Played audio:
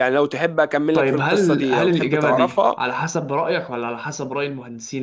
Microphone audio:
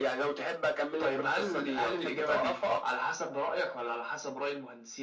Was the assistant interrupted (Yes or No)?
No